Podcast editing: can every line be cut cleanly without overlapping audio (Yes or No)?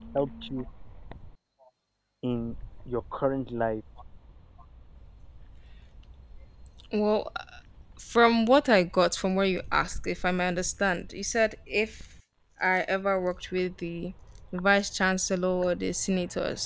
Yes